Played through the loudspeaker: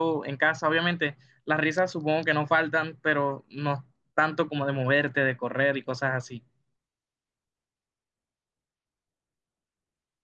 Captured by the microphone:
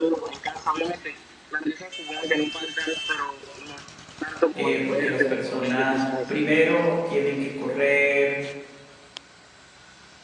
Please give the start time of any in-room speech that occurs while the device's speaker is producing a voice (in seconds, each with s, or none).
4.5 s